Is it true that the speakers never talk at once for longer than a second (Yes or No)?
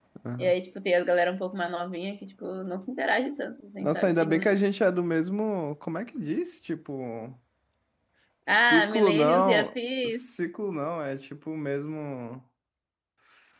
No